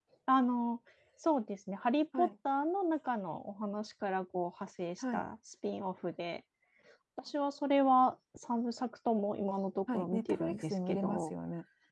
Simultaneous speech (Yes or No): Yes